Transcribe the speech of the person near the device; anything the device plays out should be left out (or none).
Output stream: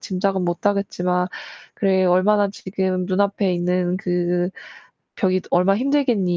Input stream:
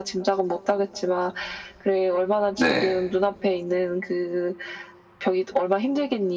네.